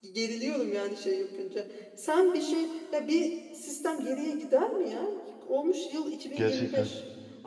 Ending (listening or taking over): listening